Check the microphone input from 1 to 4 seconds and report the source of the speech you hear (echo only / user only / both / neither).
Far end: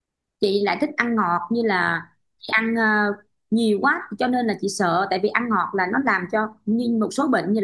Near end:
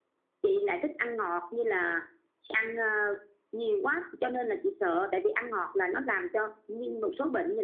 echo only